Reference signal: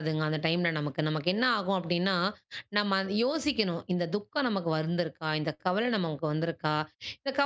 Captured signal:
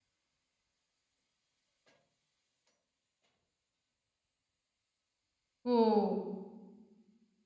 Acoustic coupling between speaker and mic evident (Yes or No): No